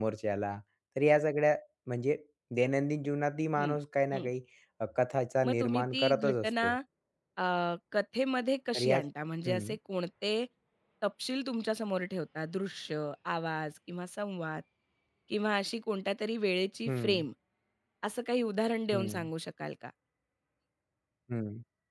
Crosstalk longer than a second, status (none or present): present